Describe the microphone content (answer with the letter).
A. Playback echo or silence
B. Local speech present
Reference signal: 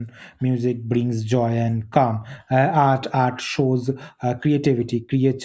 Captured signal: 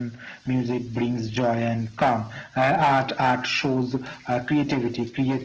A